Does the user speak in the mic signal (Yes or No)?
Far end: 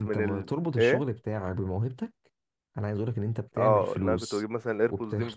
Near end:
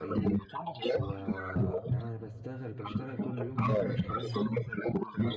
Yes